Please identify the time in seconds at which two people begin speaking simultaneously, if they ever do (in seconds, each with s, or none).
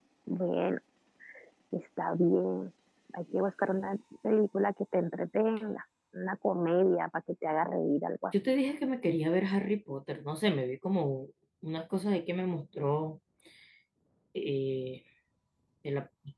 none